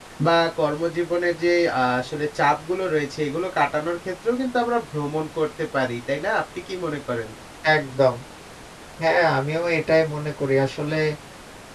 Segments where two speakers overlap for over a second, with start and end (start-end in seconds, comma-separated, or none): none